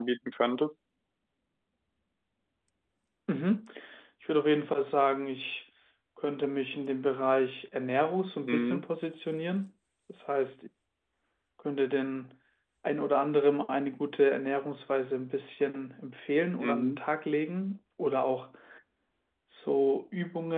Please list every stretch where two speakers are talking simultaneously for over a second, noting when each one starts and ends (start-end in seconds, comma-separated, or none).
none